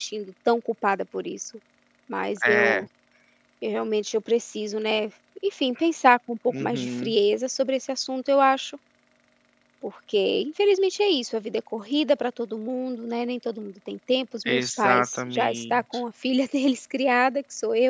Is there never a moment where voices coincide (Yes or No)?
No